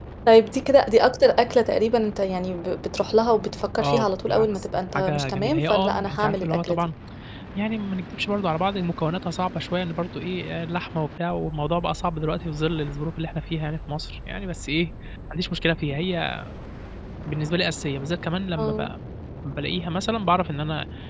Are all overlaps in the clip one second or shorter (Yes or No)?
No